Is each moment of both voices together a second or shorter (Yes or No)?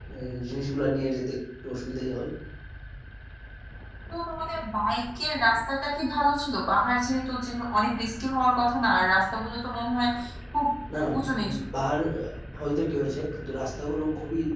Yes